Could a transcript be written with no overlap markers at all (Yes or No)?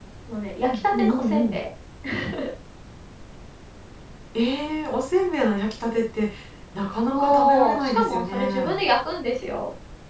No